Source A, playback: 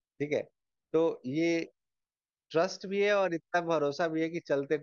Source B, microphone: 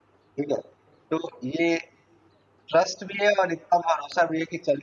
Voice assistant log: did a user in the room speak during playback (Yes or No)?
No